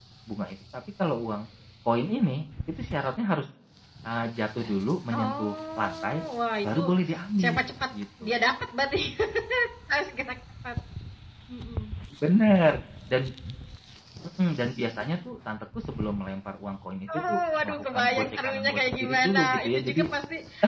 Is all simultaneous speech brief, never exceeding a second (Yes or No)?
No